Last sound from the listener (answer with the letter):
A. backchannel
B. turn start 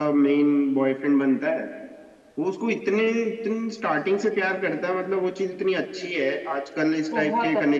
A